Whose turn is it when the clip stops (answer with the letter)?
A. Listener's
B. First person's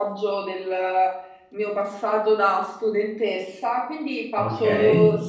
B